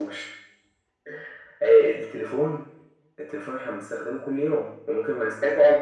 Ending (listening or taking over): taking over